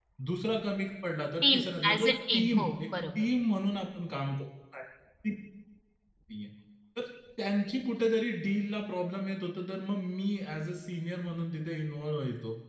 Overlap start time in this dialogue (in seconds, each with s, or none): 1.4 s